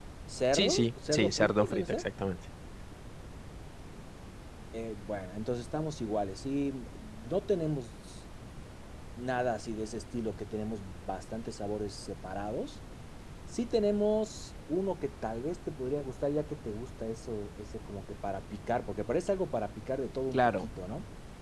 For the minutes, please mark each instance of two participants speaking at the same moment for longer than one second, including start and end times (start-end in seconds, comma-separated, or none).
0.5-2.0